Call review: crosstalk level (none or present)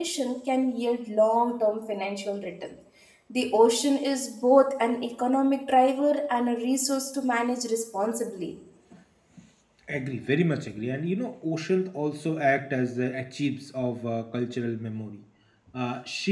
none